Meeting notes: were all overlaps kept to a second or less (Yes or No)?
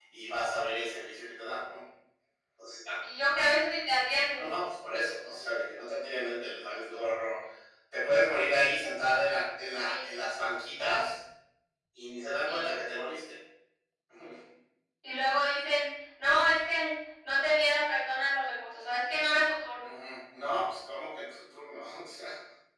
Yes